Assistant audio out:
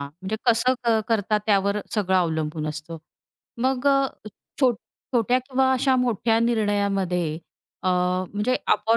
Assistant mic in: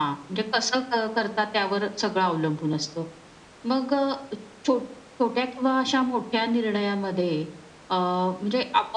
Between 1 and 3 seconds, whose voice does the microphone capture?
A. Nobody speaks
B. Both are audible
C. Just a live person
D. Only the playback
D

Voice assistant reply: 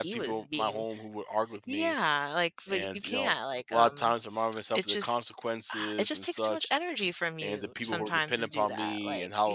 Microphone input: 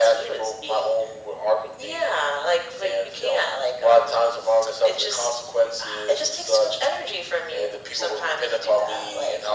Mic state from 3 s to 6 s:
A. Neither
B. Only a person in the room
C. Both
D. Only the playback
D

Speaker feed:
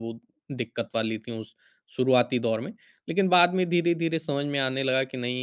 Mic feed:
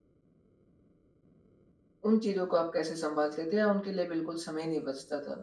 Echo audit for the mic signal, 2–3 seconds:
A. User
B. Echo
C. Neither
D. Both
A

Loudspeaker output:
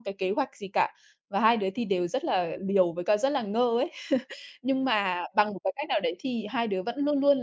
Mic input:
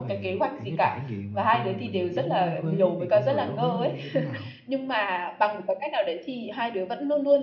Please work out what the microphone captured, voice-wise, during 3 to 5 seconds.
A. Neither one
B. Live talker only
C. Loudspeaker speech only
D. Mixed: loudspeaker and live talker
D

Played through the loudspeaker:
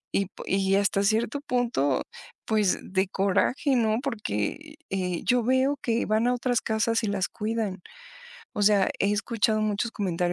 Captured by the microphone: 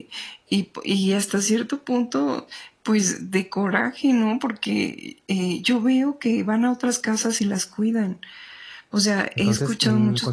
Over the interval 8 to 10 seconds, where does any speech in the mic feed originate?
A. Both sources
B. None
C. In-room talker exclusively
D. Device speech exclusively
A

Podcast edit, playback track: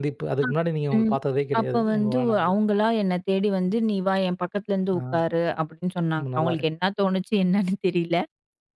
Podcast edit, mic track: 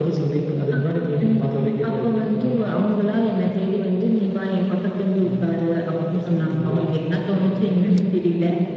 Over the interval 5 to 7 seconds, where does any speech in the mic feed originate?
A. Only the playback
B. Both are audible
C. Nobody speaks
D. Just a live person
B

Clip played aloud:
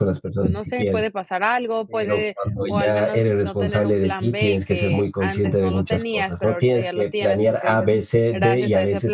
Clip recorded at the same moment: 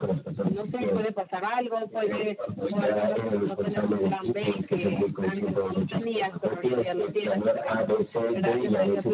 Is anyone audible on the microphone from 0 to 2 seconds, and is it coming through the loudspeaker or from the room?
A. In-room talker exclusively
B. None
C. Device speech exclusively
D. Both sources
C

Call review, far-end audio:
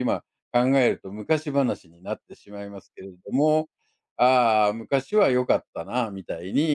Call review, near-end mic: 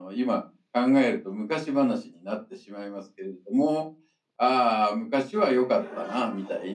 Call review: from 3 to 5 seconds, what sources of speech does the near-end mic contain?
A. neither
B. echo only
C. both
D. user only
B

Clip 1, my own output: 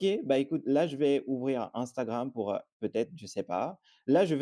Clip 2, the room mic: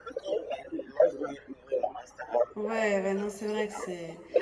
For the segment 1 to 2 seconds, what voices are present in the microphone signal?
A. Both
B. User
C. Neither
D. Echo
D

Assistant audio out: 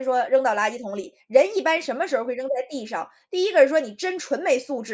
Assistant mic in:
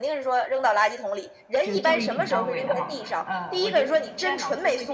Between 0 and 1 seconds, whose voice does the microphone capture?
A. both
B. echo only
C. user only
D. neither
B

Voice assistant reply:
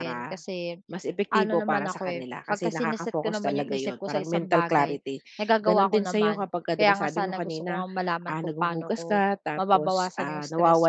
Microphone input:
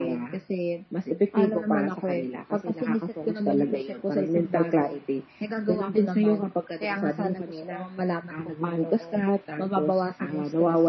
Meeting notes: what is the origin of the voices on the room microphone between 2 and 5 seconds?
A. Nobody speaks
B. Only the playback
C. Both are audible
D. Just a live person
B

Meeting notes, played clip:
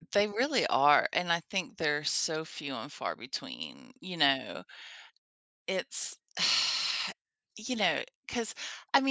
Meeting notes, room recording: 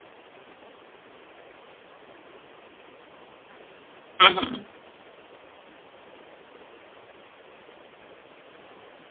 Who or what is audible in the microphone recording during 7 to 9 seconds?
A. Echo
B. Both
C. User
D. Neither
D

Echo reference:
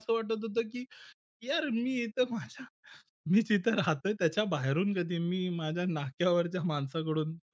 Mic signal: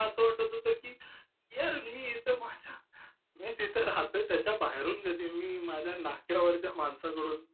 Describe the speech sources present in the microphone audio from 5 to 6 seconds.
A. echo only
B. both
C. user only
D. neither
A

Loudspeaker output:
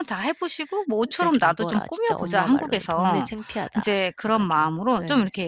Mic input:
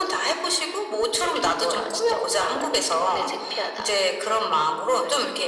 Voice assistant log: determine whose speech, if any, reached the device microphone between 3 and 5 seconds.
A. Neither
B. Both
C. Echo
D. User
C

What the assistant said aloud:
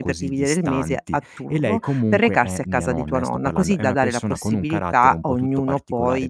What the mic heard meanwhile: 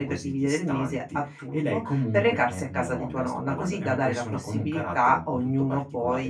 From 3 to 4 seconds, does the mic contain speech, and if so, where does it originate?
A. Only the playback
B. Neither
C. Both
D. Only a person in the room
A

